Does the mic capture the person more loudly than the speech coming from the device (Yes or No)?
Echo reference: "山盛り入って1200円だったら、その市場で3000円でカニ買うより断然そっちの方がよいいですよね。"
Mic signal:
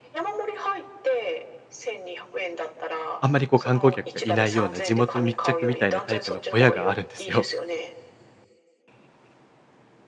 Yes